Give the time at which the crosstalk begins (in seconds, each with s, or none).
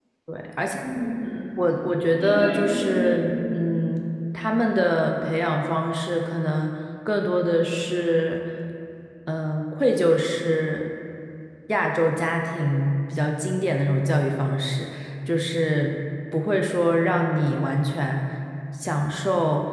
2.2 s